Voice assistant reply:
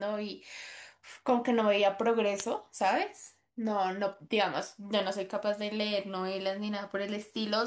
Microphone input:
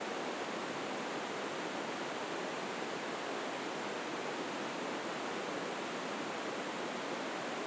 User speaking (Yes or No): No